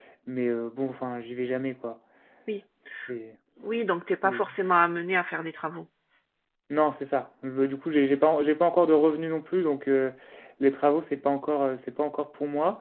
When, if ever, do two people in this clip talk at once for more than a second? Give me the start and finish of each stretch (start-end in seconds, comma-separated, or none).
none